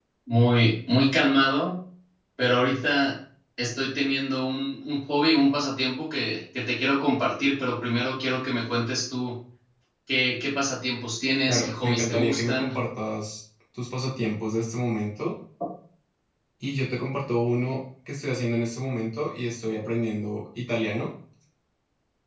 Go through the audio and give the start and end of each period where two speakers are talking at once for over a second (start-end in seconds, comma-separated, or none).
11.5-12.8